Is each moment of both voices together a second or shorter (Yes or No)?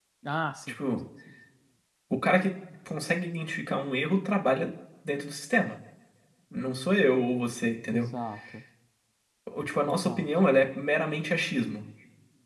Yes